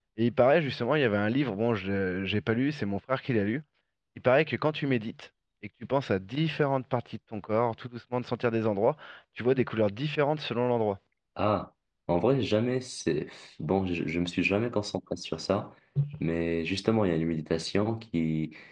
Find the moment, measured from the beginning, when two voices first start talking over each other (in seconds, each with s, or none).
none